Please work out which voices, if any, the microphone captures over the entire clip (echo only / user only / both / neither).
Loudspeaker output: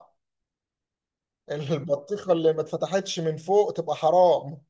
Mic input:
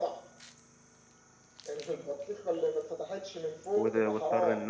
both